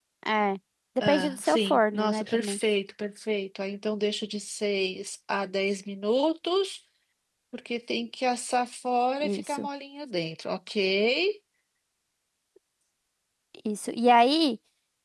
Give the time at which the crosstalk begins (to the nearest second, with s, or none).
1 s